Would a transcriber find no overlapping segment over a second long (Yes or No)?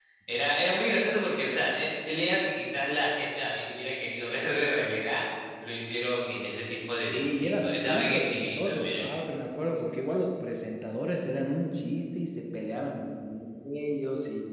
No